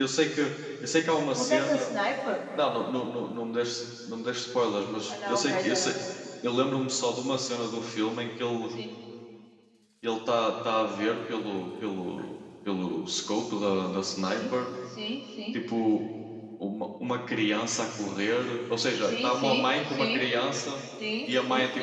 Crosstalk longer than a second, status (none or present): present